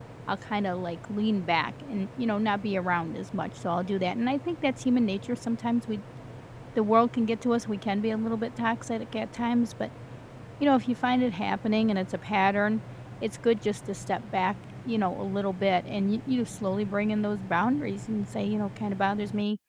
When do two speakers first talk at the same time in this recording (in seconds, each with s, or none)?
none